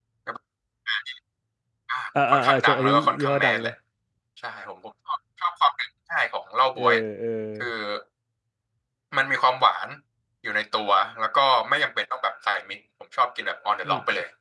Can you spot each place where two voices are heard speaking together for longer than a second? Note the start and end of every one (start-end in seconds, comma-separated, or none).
2.3-3.7